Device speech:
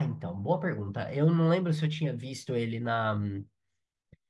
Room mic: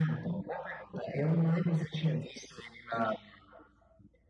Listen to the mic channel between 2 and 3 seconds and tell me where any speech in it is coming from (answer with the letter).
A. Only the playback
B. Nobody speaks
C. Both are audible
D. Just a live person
A